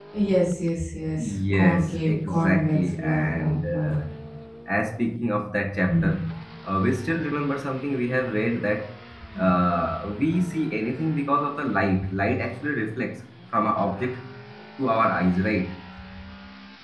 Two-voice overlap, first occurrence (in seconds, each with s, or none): 1.2 s